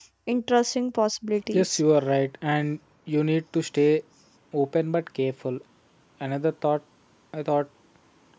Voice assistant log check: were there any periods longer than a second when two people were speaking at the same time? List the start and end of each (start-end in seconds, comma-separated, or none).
none